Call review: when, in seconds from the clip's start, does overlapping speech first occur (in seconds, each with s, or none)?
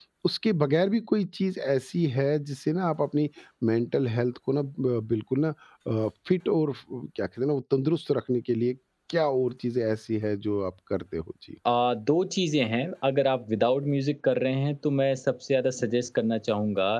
none